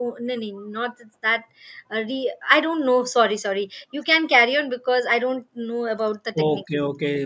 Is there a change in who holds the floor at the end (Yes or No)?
Yes